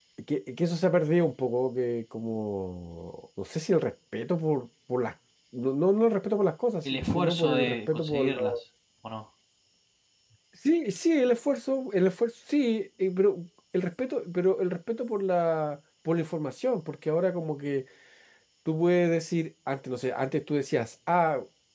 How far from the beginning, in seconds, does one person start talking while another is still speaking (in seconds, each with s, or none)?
6.8 s